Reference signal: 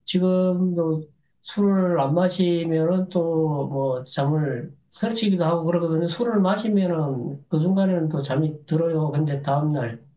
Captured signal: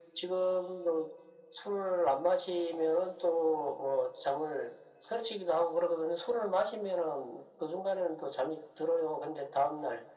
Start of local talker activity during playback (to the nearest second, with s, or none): none